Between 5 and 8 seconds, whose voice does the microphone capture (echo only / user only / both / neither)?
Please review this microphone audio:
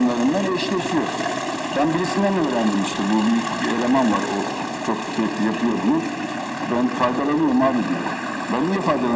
echo only